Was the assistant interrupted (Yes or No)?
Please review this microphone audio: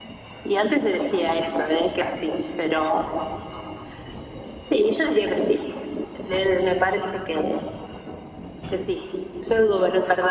No